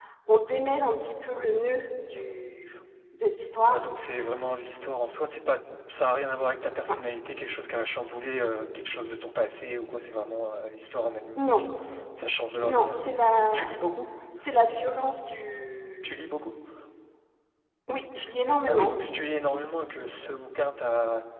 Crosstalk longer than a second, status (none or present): none